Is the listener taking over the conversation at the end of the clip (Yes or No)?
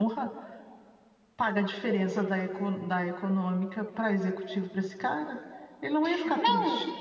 Yes